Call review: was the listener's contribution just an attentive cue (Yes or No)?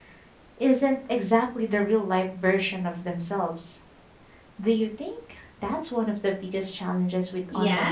No